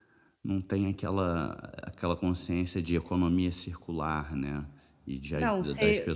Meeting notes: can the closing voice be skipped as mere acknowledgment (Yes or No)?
No